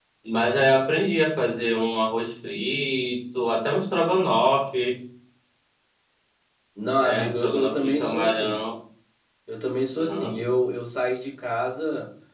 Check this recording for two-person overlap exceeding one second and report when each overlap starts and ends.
7.0-8.6

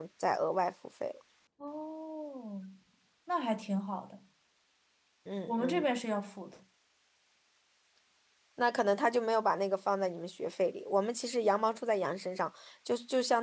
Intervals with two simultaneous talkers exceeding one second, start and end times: none

